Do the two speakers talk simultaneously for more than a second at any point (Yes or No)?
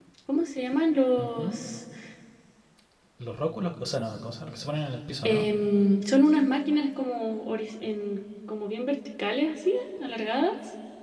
No